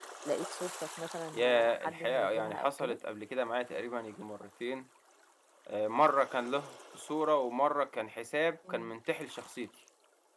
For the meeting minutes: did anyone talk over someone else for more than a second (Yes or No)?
Yes